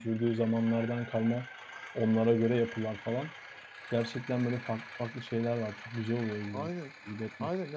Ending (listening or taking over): taking over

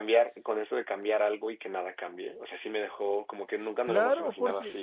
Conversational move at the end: taking over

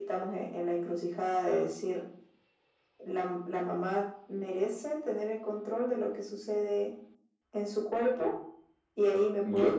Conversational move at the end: listening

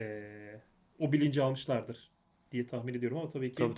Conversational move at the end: taking over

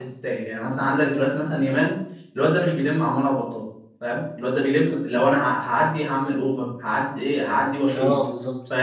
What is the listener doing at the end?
taking over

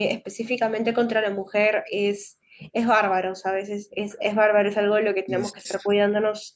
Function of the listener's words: listening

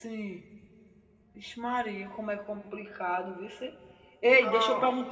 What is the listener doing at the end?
listening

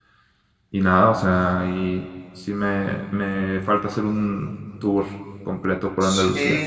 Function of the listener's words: taking over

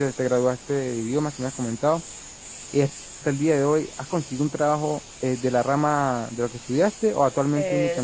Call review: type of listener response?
taking over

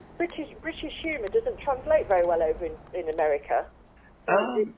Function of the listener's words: listening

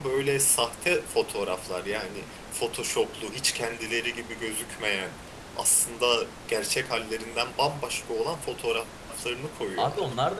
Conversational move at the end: taking over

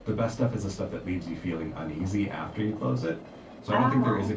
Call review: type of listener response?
listening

